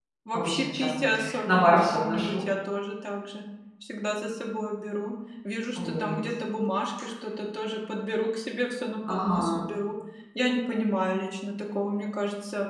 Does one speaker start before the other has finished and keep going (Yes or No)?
Yes